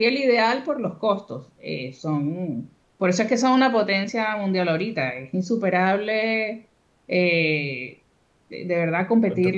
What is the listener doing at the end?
listening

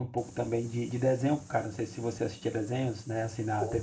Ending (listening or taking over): listening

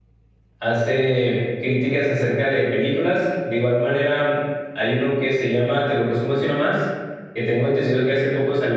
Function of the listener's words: listening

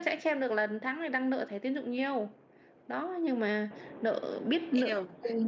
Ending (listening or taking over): taking over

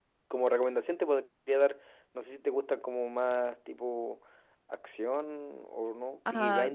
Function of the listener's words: taking over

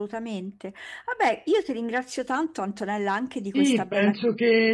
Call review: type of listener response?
taking over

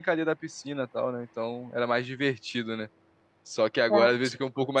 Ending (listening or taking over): listening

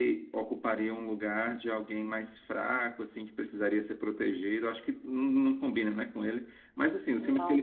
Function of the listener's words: listening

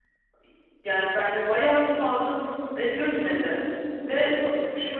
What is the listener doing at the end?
listening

